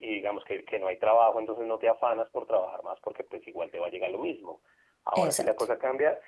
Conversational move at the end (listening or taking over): listening